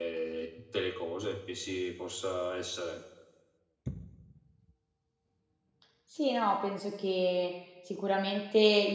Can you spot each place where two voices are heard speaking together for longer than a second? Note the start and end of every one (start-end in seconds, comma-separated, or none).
none